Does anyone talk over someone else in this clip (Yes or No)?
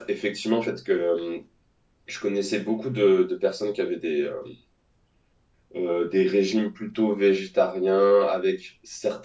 No